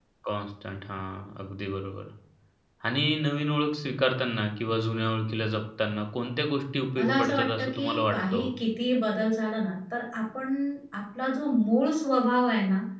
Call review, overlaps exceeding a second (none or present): present